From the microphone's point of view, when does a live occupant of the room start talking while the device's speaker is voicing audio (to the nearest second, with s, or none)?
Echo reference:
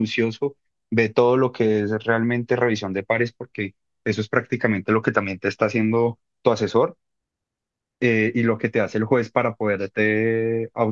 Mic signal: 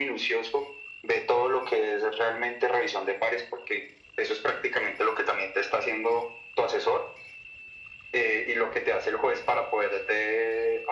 none